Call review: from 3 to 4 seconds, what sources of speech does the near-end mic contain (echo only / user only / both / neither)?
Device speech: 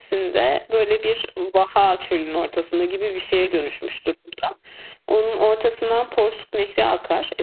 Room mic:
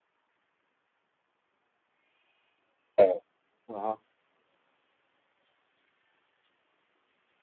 user only